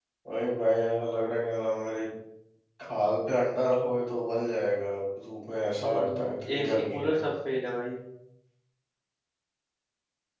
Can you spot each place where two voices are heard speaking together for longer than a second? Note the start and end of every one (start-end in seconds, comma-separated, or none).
5.8-7.2